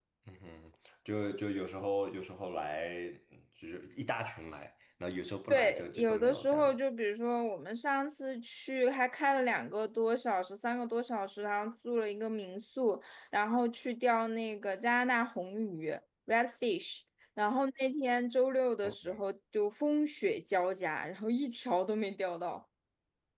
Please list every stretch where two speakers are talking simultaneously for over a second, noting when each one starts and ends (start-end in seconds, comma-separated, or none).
5.5-6.7